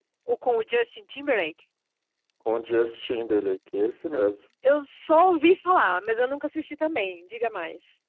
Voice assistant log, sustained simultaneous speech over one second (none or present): none